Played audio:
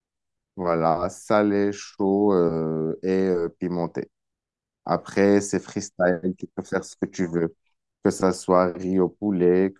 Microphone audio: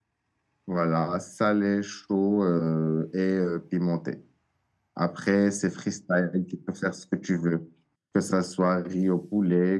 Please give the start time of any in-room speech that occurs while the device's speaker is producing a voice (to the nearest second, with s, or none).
none